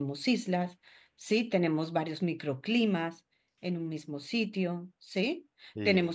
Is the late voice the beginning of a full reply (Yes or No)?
No